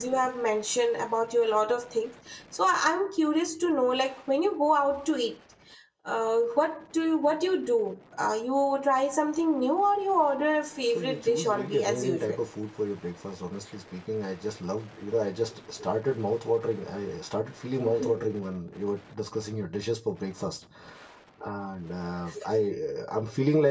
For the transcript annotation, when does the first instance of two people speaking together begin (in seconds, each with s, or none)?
10.9 s